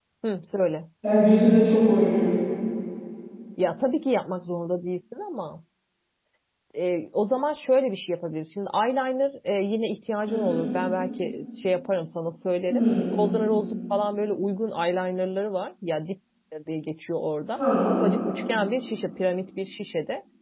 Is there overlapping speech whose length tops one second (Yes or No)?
No